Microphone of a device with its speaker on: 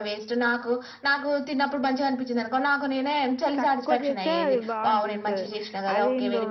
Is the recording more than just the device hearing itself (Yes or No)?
Yes